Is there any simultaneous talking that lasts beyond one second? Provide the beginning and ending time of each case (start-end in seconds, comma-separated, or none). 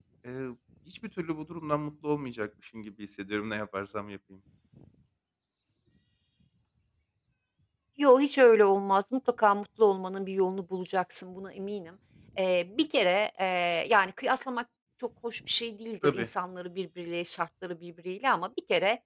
none